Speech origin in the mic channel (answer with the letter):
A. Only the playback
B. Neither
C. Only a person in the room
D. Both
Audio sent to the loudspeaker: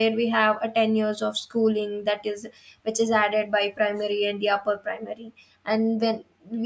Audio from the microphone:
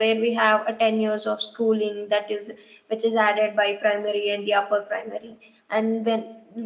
A